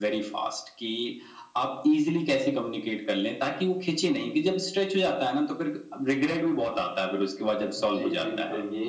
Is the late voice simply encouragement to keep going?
No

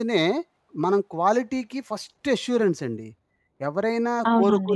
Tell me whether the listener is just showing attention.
Yes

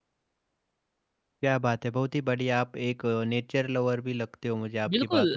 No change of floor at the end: No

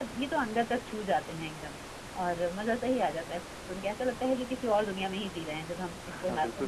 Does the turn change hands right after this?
Yes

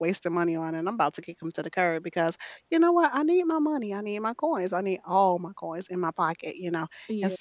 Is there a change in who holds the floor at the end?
No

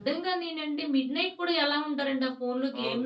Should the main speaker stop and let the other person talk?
Yes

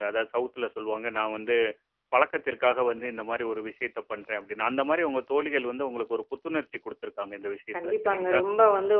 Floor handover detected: Yes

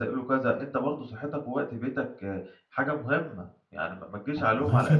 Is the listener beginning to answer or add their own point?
No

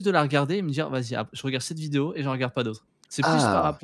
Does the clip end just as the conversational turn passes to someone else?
No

